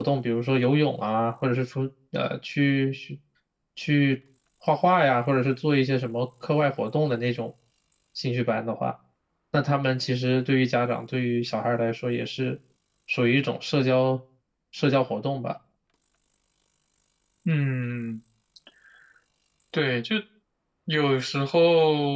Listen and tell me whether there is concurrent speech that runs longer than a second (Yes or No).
No